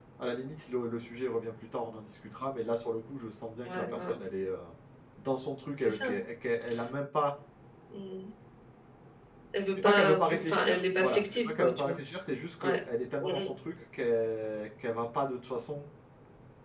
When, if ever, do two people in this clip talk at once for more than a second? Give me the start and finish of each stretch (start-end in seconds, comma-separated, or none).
9.8-12.0